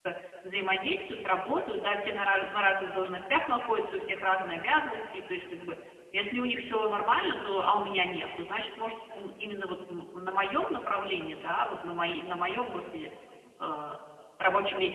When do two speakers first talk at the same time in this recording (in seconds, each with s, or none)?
none